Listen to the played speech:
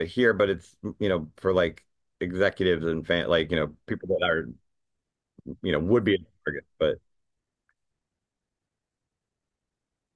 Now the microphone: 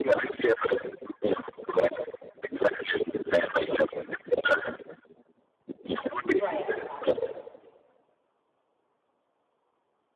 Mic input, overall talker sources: both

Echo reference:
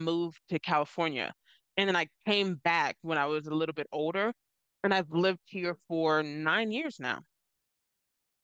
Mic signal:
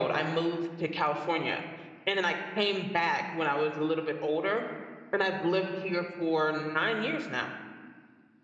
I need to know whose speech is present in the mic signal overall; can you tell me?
echo only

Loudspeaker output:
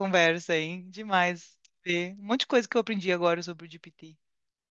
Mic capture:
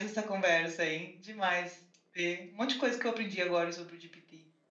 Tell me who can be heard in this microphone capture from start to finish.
echo only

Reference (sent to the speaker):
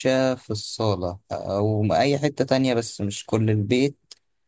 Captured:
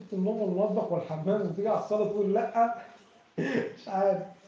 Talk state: user only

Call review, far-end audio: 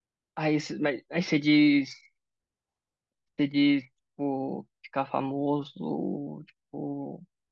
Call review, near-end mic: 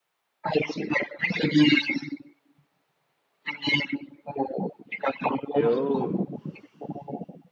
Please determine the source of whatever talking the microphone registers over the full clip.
both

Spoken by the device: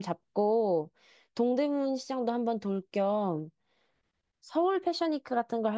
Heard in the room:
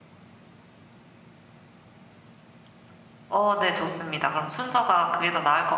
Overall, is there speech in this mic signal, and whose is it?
user only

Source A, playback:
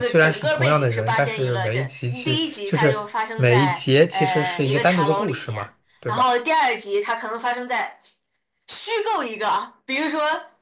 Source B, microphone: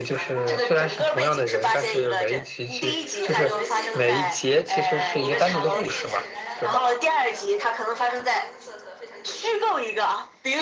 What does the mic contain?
both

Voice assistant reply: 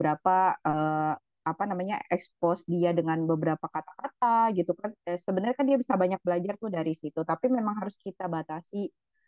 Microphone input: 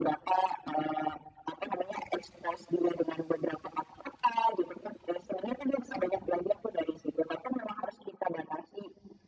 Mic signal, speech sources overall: echo only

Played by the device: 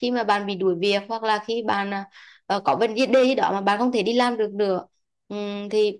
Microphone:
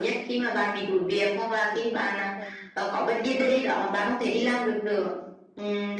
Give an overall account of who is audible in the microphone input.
both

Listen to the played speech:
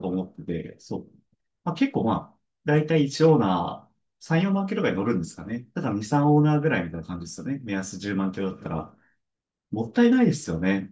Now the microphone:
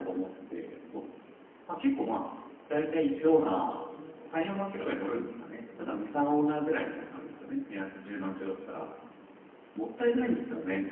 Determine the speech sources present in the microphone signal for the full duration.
echo only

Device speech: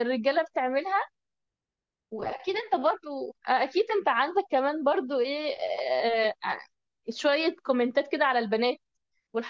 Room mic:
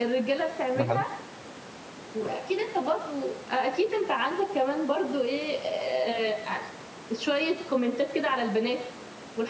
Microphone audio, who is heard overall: both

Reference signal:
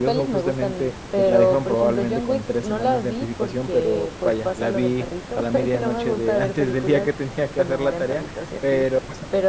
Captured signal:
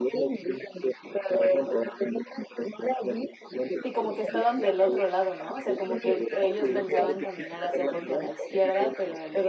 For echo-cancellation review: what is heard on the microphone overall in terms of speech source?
both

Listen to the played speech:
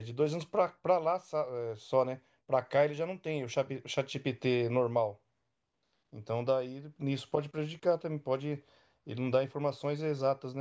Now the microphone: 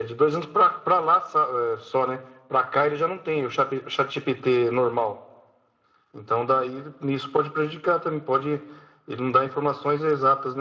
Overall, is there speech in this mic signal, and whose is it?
echo only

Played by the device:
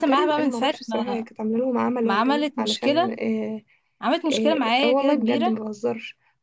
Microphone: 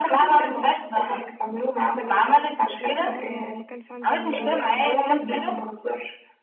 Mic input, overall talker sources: both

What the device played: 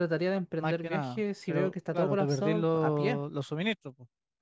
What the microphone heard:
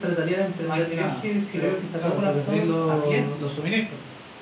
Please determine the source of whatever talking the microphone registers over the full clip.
echo only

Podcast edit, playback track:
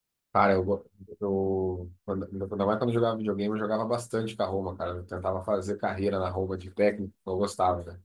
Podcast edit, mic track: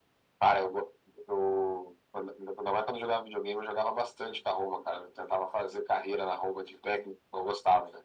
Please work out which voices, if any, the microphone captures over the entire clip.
echo only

